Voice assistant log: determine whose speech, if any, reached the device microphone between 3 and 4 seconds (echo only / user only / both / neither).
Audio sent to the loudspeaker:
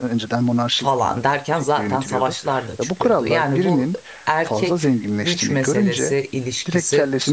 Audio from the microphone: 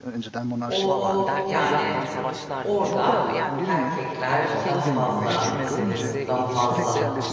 both